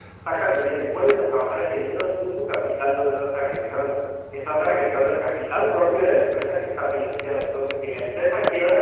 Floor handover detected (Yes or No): No